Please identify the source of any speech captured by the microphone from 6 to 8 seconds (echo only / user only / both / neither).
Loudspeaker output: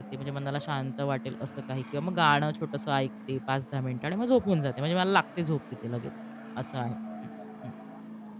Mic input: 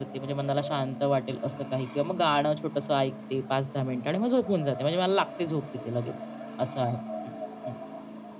echo only